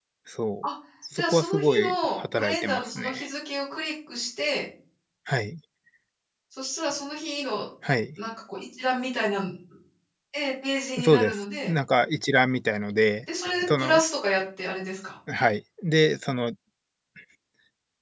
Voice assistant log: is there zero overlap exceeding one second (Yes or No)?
No